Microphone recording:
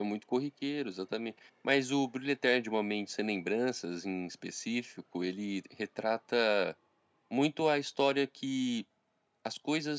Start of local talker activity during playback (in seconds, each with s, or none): none